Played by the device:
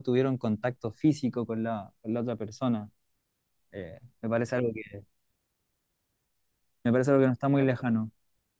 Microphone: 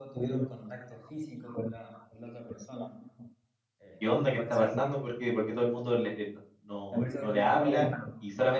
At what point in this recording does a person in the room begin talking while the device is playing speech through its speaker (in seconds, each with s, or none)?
4.0 s